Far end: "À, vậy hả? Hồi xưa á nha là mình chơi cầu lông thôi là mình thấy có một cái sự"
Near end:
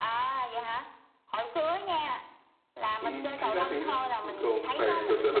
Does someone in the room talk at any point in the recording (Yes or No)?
Yes